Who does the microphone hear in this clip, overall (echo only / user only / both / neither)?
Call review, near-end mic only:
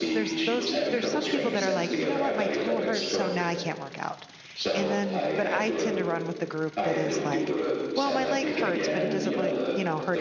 both